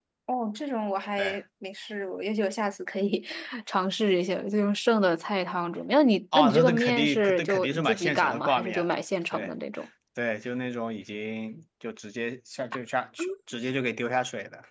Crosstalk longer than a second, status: present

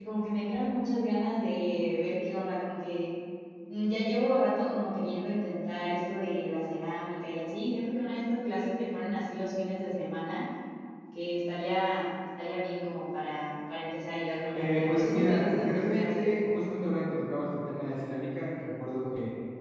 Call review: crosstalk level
present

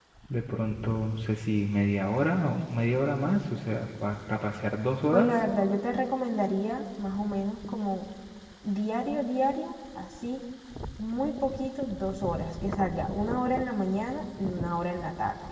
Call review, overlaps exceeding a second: none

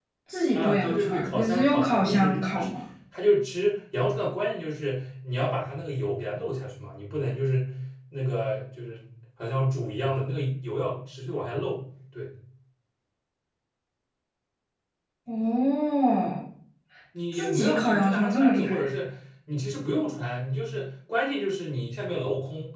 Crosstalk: present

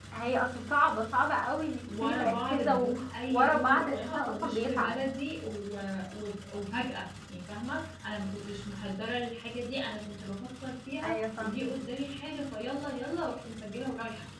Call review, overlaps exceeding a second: present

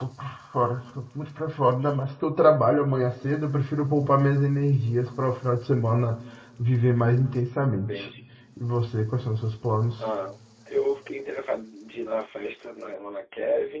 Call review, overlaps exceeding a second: none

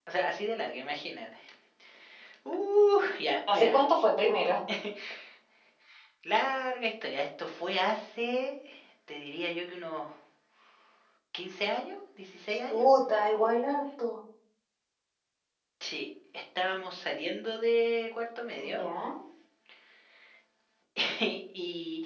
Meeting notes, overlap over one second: none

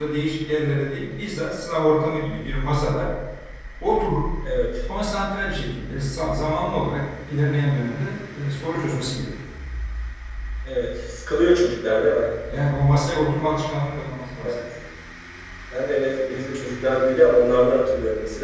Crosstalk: none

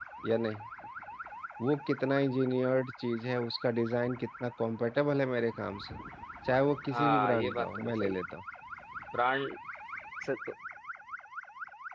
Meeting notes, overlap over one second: present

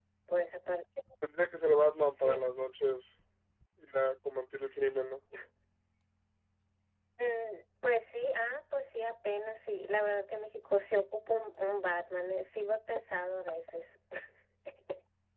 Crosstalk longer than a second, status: none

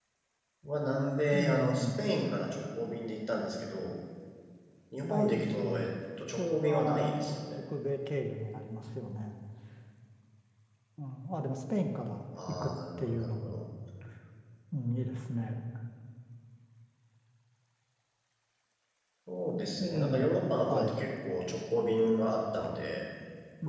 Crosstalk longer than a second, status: present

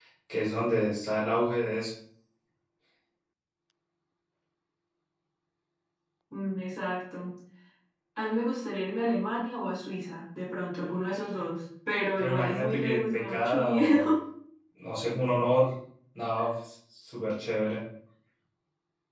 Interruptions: present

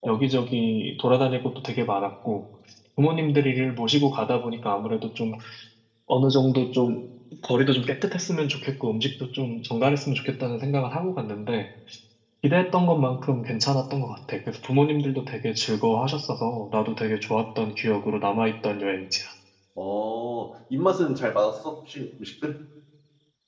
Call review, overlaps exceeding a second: none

